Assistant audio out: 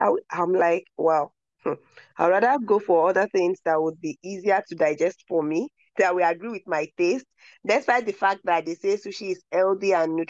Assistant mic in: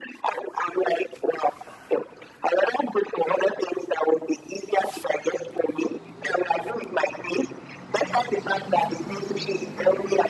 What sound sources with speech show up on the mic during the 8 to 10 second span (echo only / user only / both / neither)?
echo only